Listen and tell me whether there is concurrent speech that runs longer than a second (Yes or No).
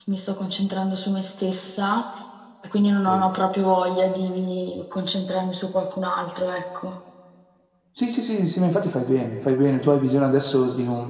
No